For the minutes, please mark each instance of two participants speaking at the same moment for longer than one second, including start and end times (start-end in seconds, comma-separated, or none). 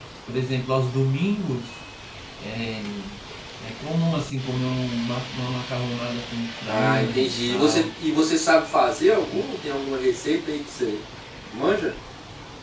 6.6-7.9